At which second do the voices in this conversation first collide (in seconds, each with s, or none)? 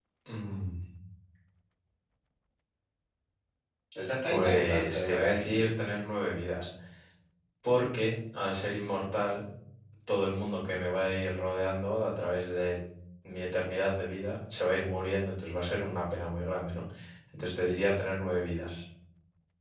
4.3 s